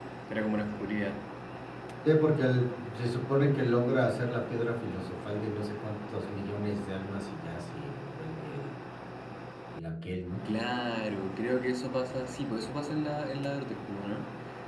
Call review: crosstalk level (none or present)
none